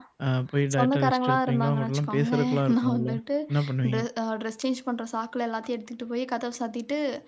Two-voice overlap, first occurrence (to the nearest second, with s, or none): 1 s